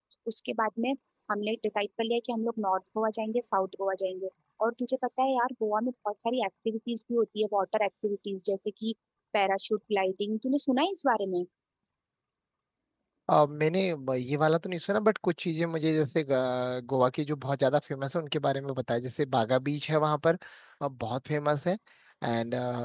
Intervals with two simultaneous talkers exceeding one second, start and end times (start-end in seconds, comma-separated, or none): none